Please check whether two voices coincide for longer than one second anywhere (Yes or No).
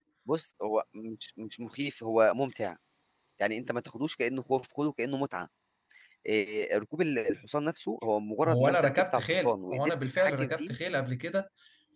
Yes